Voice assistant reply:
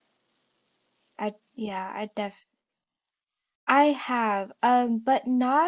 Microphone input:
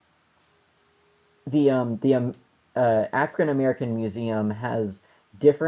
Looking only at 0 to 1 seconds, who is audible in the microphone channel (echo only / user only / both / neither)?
neither